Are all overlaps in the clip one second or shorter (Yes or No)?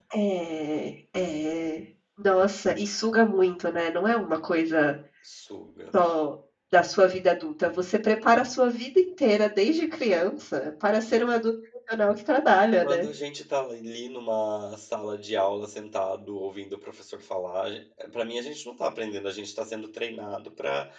Yes